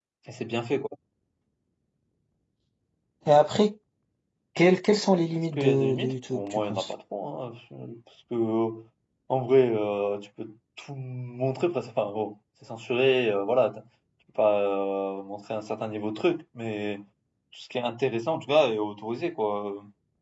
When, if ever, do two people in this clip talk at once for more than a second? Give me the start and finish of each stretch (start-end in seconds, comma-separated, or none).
5.5-6.9